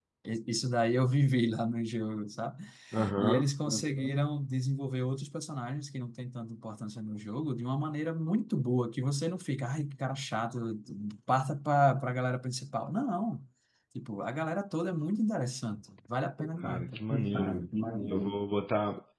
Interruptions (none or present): present